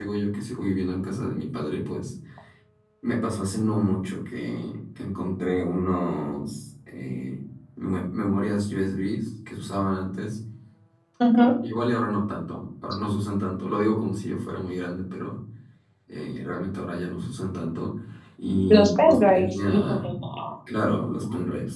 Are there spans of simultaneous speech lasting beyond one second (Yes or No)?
Yes